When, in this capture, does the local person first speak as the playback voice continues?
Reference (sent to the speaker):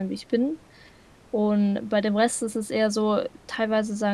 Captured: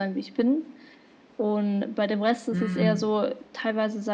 2.5 s

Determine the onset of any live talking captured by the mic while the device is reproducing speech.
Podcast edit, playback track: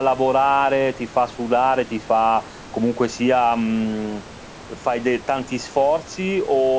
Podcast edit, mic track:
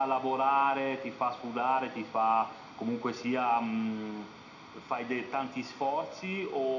none

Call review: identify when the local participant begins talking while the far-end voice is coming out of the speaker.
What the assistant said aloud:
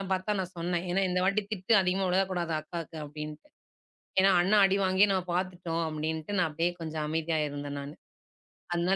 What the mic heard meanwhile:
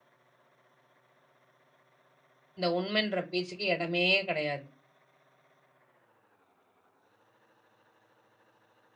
2.6 s

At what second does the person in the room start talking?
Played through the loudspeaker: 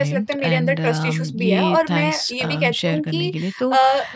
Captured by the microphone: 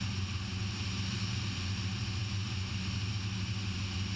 none

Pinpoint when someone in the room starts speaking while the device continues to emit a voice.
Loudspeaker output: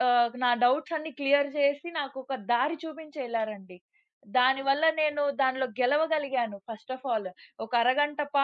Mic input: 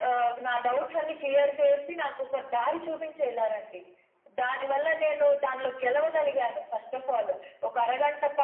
5.9 s

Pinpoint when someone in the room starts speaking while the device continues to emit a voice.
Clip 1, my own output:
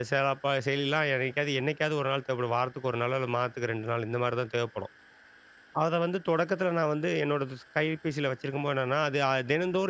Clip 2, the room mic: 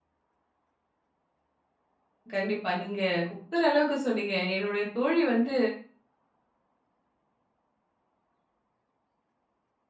2.3 s

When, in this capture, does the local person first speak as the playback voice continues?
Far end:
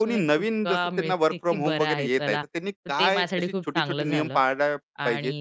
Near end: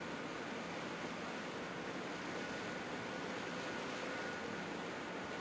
none

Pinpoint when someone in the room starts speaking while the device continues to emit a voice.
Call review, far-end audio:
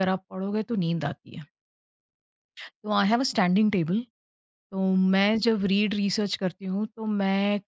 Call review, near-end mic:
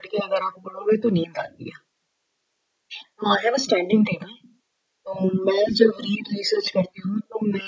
none

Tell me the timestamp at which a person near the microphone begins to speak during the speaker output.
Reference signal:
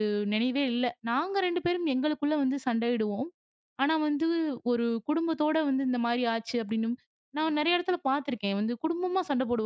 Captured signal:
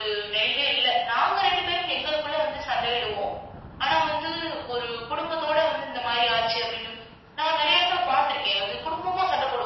none

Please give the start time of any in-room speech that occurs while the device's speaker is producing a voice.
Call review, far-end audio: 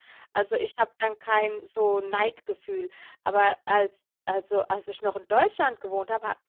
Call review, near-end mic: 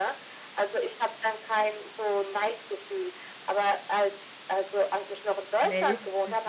5.6 s

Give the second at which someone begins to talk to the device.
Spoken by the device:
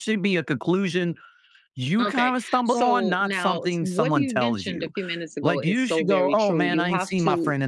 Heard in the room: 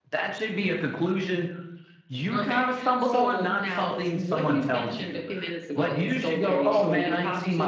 none

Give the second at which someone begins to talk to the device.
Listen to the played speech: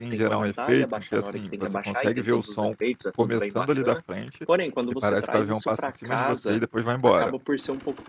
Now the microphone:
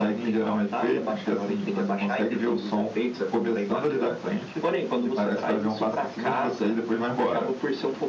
none

